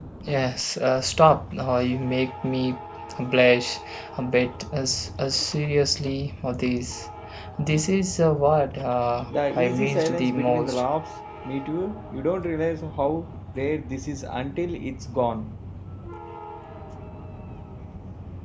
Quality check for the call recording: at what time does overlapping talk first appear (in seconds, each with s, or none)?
9.3 s